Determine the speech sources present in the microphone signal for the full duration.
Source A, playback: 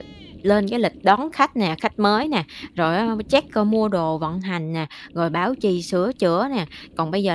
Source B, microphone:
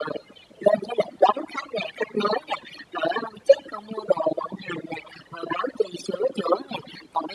echo only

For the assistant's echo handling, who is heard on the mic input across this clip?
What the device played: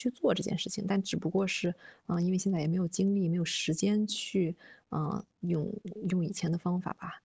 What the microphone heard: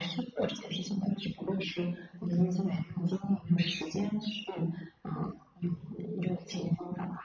echo only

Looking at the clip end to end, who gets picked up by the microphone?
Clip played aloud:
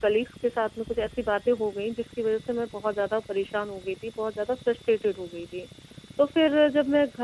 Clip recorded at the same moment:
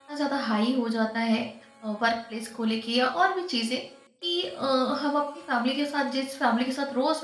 user only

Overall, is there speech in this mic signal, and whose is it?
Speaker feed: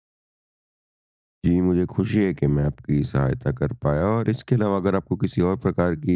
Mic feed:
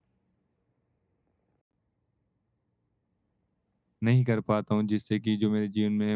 user only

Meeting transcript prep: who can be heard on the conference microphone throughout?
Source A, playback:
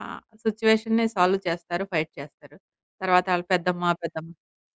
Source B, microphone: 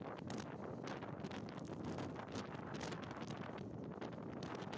neither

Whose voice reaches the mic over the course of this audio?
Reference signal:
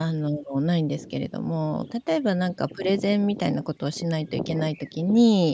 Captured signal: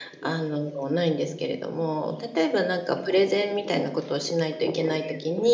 echo only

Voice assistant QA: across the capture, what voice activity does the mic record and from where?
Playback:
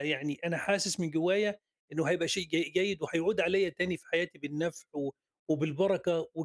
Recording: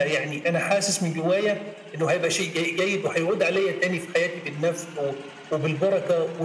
echo only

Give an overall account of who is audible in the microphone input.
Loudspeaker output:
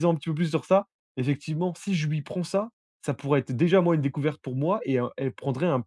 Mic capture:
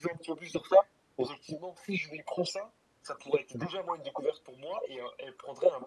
echo only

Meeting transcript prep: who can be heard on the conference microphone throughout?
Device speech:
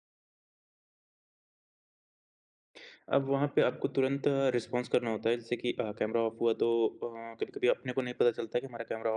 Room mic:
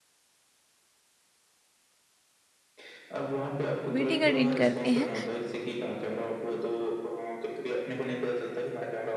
both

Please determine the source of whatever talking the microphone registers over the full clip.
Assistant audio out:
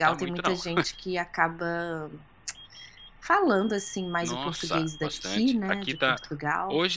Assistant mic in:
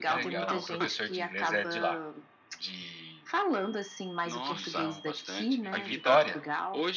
both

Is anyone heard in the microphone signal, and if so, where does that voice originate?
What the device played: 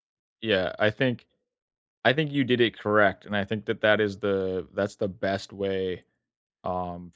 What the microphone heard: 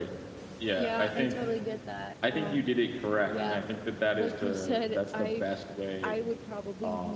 both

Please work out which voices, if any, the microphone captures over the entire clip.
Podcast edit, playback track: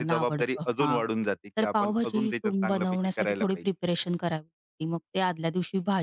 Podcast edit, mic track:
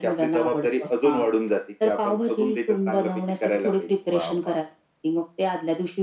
both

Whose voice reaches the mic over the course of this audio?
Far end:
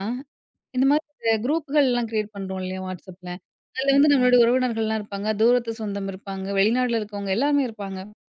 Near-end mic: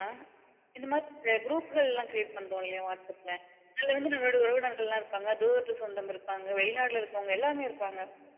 echo only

